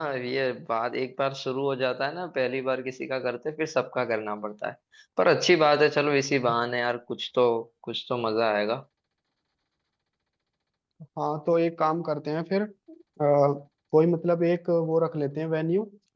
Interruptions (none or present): none